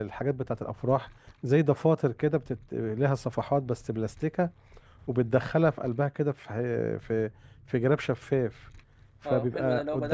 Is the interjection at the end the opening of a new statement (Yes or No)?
Yes